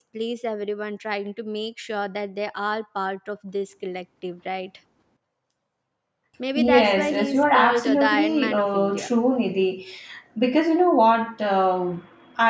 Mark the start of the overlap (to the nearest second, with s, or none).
7 s